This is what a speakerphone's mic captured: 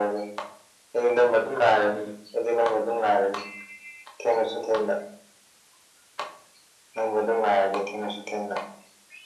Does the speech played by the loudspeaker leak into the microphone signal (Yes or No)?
Yes